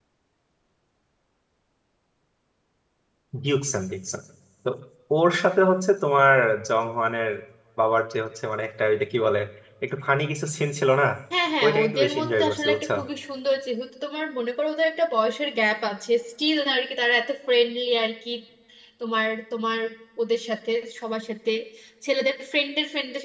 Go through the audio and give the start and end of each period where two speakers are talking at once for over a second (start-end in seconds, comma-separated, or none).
11.6-12.9